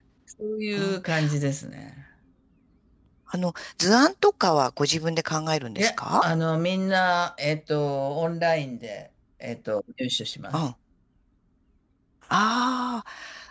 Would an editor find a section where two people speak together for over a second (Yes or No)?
No